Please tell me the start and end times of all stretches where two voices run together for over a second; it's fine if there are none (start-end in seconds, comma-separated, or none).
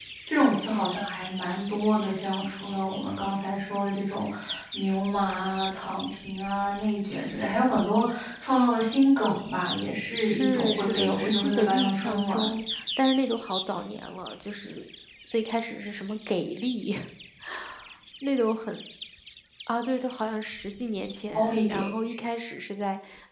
10.2-12.5